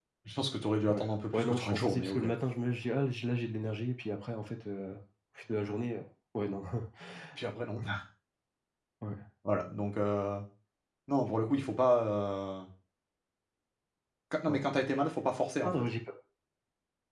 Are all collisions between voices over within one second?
No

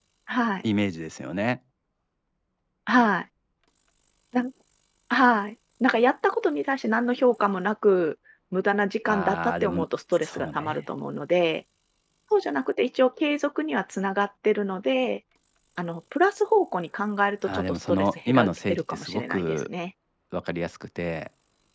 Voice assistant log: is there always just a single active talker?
No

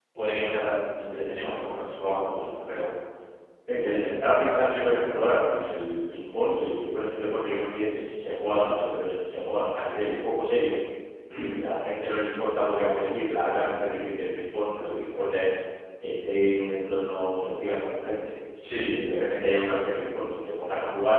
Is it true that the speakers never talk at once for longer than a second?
Yes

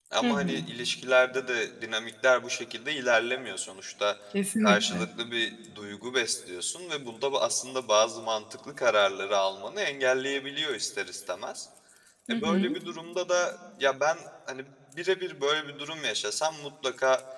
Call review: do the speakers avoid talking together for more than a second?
Yes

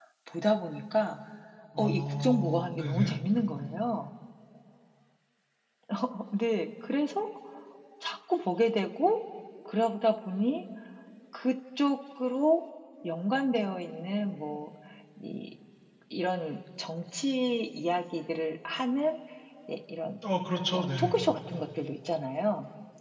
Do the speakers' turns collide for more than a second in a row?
Yes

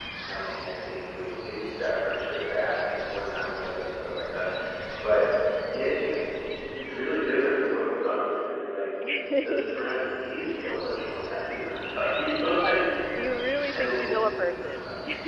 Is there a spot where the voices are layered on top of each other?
Yes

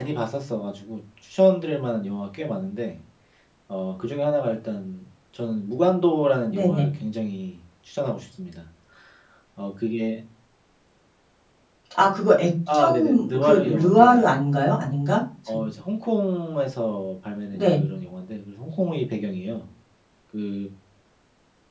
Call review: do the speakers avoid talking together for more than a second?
No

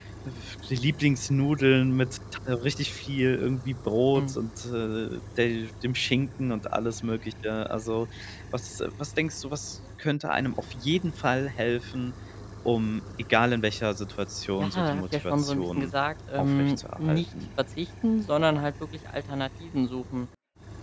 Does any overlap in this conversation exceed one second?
Yes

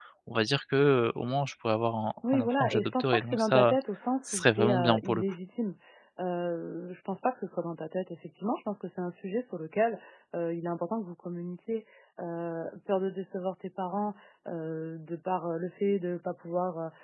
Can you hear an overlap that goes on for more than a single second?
Yes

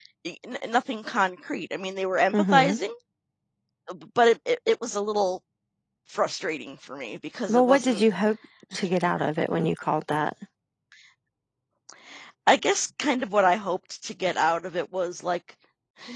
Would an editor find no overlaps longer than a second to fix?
Yes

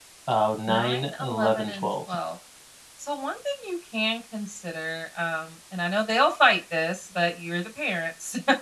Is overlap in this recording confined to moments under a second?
No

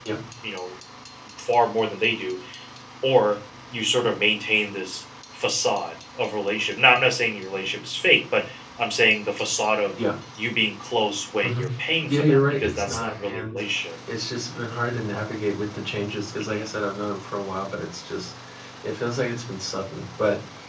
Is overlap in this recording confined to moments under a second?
No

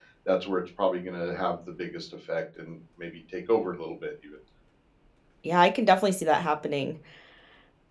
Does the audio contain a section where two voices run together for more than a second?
No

